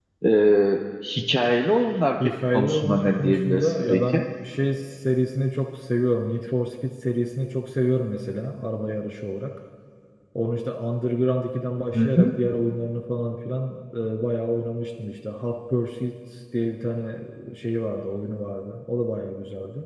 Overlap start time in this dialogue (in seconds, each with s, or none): 2.2 s